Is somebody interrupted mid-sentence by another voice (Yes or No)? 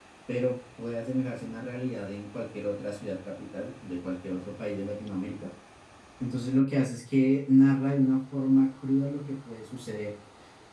No